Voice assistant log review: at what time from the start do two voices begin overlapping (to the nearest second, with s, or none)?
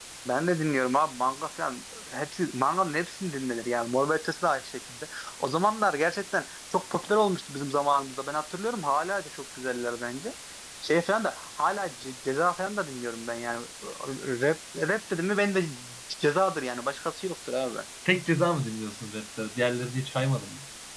none